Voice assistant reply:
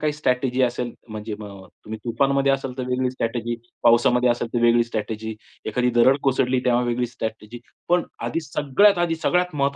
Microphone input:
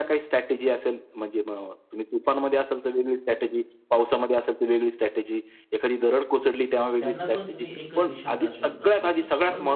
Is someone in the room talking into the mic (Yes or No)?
Yes